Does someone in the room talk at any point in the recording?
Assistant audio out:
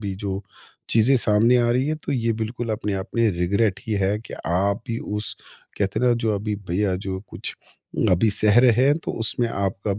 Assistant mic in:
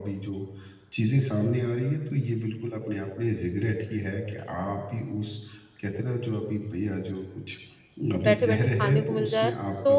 Yes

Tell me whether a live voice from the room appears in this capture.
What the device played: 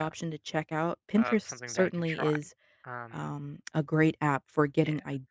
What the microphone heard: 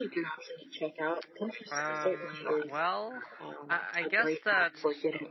Yes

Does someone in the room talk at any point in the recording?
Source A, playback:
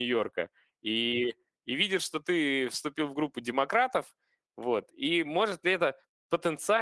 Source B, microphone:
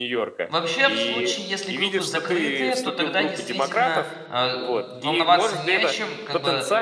Yes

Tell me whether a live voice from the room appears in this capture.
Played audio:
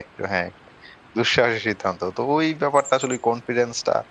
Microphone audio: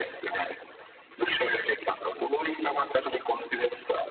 No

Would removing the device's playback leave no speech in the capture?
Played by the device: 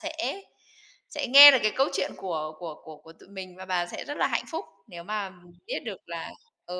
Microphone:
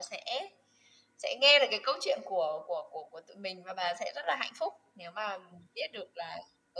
Yes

